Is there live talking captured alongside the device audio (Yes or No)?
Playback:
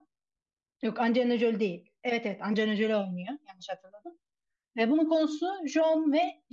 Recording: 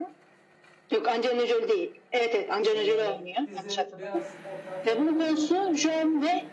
Yes